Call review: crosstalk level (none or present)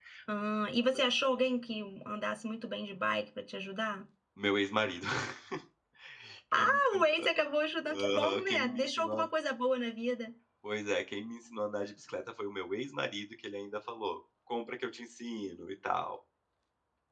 present